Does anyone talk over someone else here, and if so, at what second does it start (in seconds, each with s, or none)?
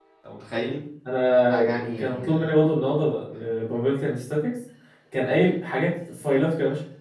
1.5 s